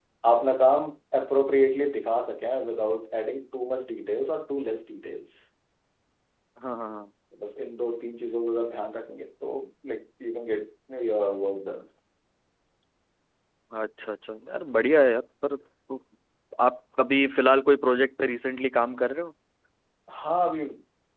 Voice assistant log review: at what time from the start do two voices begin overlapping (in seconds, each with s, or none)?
none